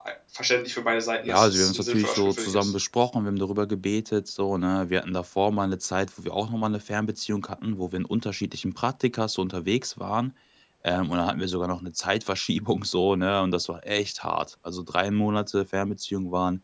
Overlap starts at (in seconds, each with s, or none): 1.3 s